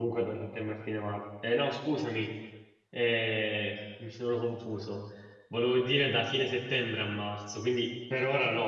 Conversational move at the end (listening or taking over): taking over